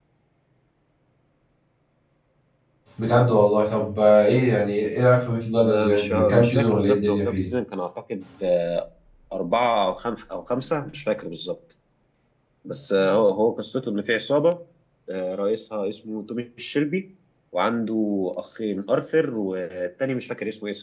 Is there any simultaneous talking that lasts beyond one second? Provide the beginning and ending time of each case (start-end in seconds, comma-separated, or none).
5.6-7.4